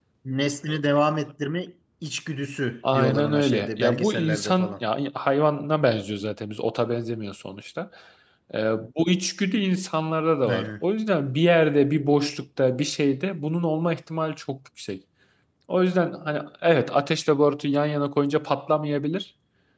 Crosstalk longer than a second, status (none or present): present